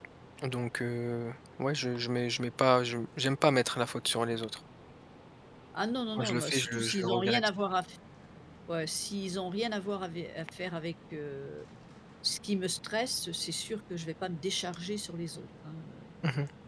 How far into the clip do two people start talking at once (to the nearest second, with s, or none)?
6 s